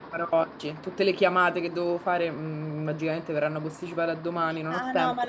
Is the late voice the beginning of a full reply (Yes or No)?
Yes